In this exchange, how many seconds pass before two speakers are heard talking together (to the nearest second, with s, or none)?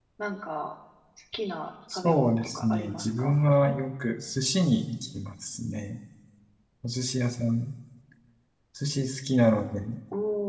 2 s